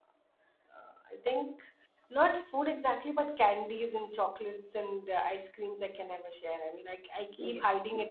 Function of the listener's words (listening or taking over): listening